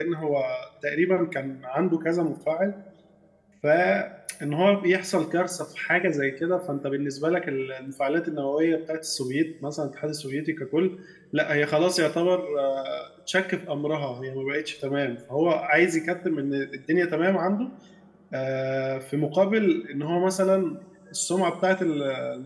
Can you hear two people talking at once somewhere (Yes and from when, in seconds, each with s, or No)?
No